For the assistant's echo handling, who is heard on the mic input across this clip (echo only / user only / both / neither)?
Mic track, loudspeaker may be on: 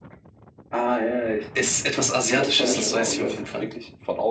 both